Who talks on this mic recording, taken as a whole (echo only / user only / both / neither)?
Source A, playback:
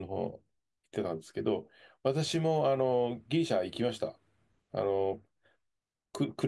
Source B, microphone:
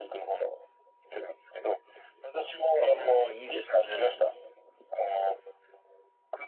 both